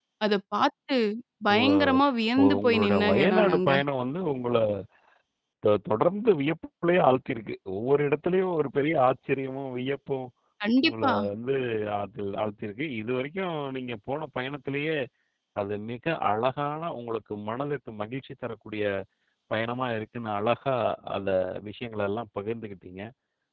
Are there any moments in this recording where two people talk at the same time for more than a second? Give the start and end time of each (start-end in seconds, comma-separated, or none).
2.4-3.7